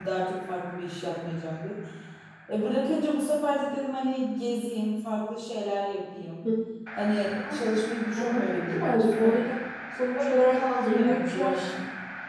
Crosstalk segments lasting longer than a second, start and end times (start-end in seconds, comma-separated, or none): 8.1-9.4, 10.3-11.5